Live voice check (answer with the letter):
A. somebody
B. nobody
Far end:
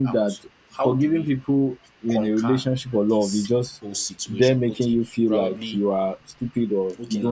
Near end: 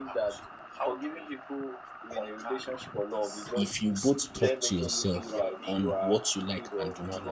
A